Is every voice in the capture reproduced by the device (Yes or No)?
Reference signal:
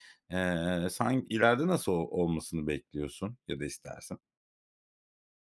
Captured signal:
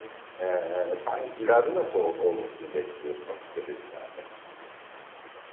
Yes